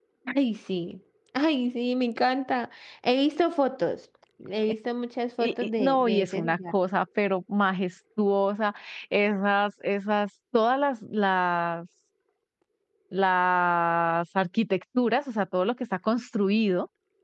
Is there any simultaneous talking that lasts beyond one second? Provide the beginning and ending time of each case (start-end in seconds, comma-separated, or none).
5.4-6.7